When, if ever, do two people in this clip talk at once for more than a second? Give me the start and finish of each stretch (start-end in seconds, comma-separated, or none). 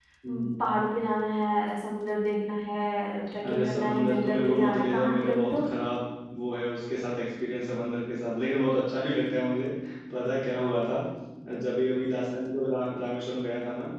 3.4-5.7